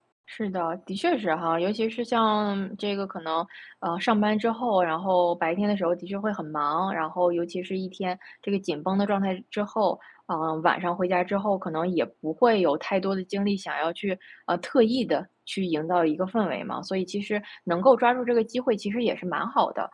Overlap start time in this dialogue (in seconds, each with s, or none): none